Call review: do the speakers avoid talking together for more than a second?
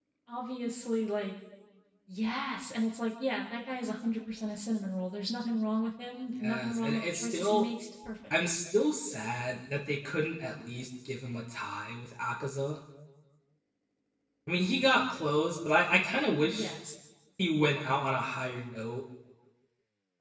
No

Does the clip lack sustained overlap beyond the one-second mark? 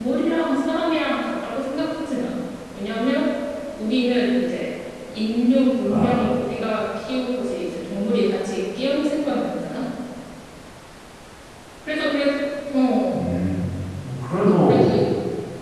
Yes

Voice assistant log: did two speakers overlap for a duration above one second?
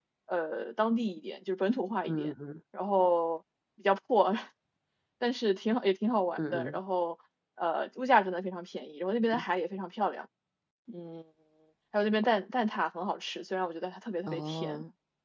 No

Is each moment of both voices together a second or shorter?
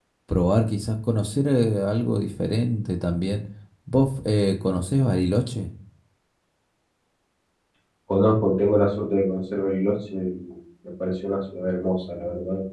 Yes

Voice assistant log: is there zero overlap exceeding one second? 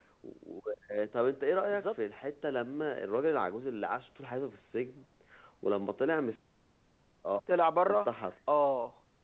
Yes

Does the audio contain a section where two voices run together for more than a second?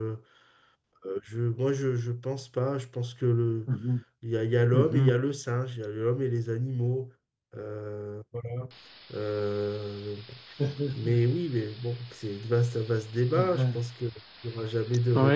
No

